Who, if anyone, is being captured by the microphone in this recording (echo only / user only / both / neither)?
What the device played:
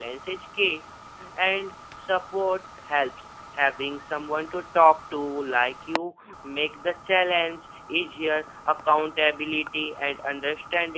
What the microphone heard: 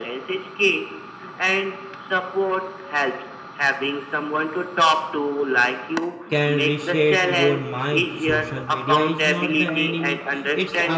both